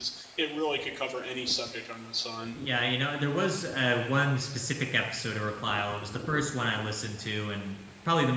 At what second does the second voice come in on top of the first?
none

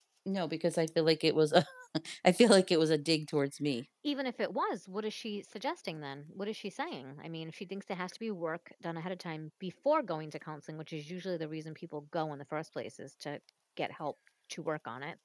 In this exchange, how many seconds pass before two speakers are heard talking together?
none

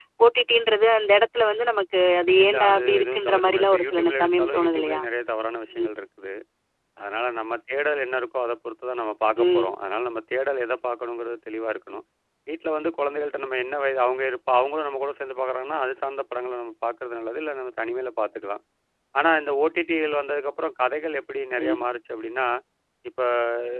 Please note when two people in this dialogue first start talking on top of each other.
2 s

